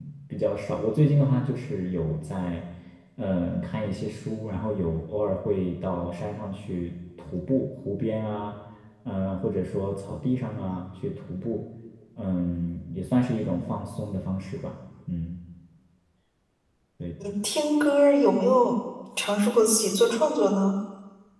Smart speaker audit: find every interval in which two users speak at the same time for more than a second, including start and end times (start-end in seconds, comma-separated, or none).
none